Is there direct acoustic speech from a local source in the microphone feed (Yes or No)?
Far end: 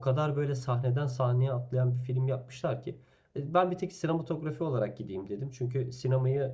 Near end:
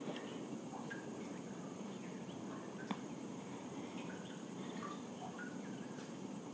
No